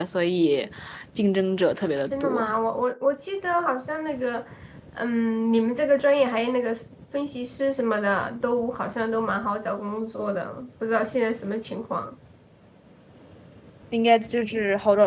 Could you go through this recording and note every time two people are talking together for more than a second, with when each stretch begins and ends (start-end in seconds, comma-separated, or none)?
none